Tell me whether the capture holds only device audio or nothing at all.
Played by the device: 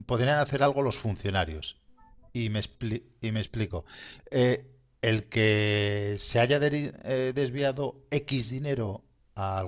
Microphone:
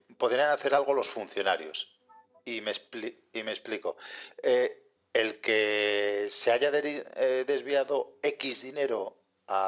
Yes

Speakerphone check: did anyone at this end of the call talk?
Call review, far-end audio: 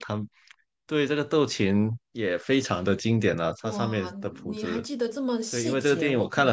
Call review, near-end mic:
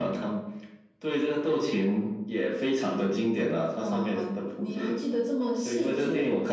No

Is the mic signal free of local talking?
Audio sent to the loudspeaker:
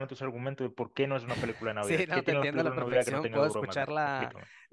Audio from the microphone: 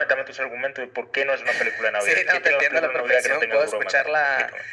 Yes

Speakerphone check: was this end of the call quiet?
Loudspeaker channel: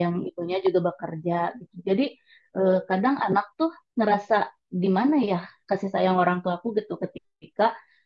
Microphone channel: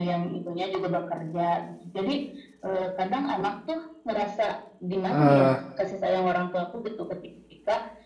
No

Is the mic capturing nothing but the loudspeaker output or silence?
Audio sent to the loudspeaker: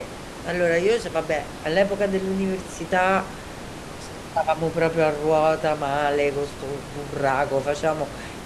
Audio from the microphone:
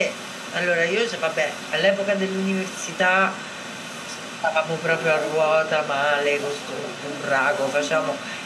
No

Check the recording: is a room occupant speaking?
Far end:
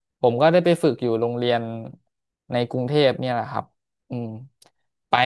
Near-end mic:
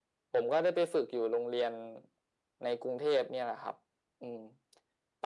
No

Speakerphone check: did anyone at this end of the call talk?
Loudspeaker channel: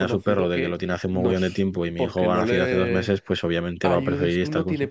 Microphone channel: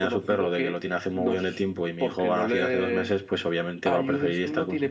No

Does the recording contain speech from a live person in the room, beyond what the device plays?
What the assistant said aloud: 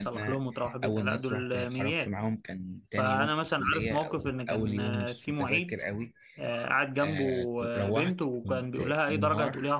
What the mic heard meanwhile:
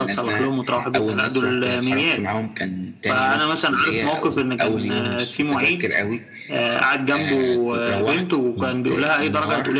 No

